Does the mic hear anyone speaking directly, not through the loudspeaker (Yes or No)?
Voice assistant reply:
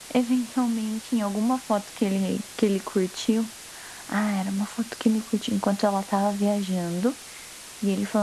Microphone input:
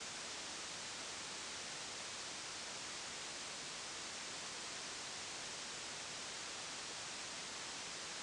No